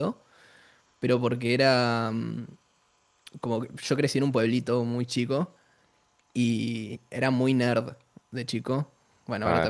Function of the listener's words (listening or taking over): taking over